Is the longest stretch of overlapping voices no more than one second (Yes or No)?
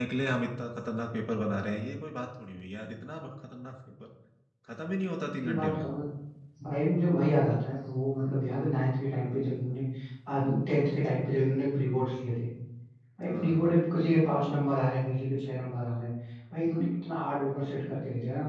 Yes